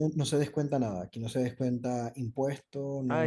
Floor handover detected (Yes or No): Yes